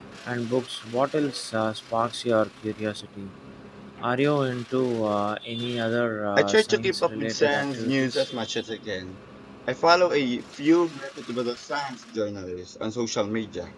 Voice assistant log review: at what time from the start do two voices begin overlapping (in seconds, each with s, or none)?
6.4 s